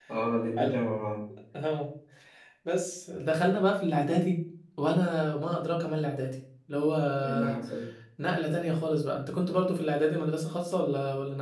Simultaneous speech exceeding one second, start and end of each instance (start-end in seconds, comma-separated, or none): none